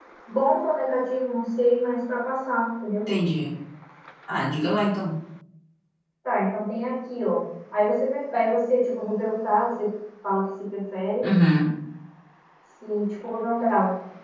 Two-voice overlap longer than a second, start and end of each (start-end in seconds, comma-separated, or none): none